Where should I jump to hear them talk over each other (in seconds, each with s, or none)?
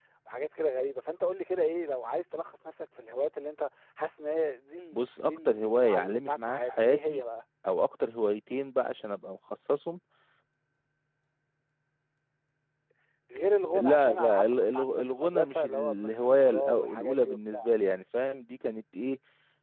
4.9 s